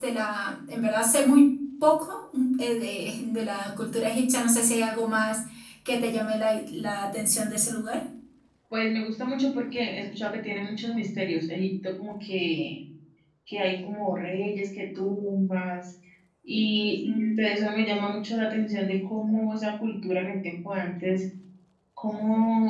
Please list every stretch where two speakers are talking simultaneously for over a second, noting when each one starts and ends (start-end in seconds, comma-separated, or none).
none